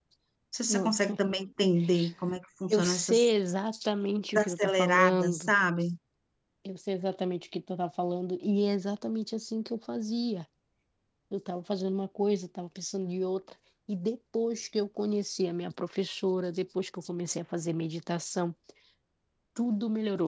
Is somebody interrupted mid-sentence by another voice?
Yes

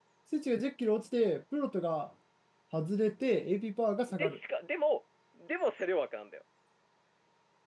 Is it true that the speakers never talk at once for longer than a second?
Yes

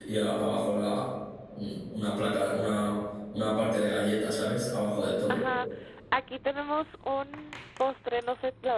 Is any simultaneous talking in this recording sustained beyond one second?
No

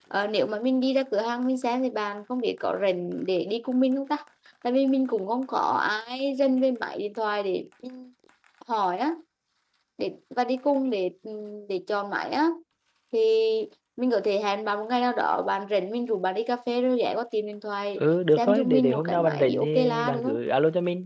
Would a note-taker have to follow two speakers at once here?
Yes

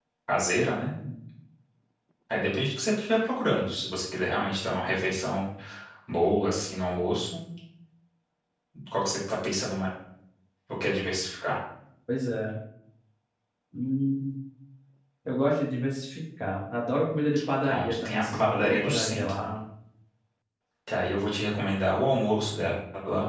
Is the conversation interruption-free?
No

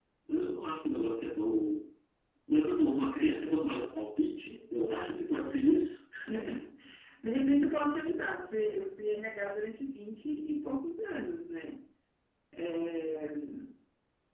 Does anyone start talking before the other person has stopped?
No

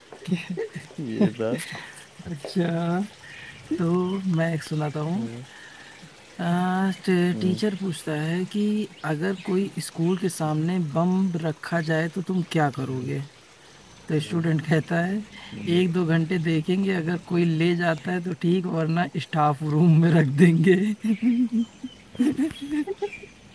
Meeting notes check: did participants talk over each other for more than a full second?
No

